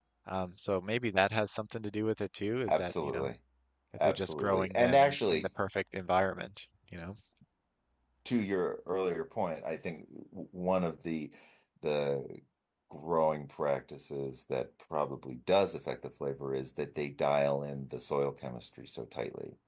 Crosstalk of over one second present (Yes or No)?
Yes